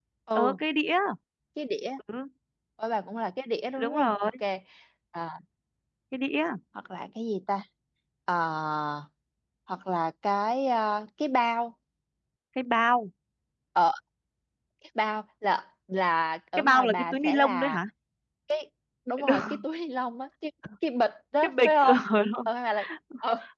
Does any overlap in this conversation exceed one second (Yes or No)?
Yes